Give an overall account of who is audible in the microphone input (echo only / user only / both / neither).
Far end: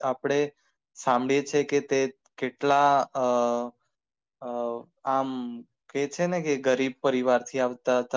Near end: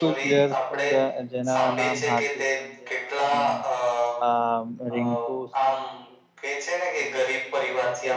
both